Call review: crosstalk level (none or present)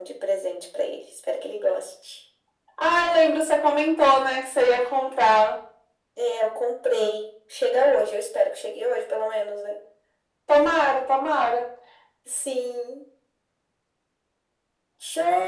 none